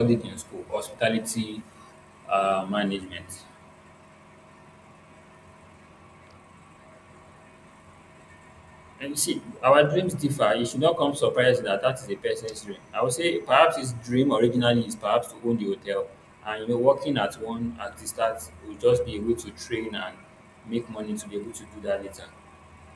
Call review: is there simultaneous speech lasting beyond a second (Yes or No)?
No